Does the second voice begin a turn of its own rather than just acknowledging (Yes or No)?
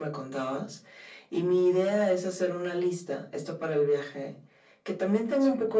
No